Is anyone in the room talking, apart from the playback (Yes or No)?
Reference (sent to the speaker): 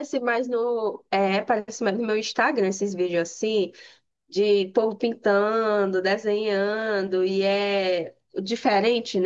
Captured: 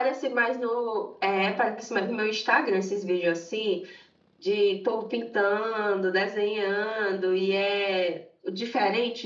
No